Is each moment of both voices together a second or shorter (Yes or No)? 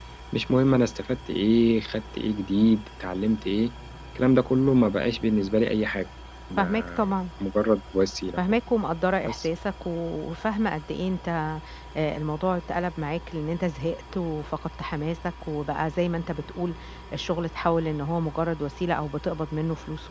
Yes